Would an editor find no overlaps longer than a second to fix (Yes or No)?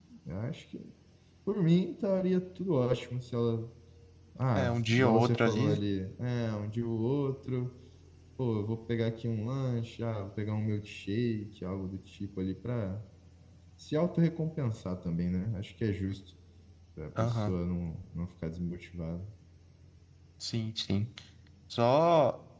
No